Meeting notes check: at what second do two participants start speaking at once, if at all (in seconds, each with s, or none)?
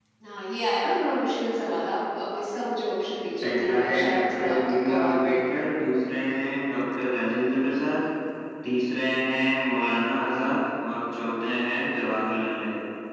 3.4 s